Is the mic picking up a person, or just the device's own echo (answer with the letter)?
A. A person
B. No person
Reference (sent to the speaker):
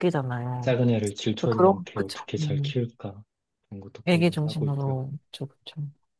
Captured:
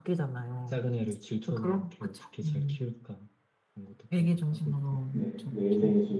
A